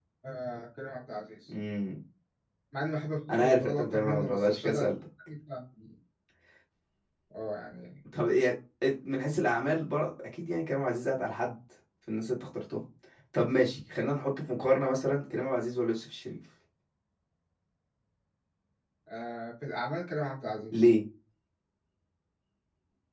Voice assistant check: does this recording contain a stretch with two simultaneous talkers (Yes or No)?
Yes